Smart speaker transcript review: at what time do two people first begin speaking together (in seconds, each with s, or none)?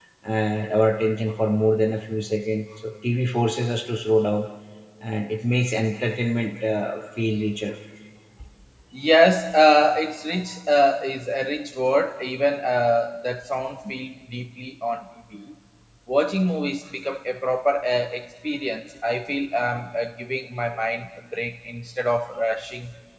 none